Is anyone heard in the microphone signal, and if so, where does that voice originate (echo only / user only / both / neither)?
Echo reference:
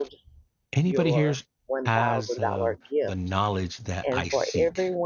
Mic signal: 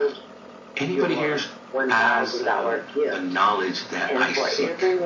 echo only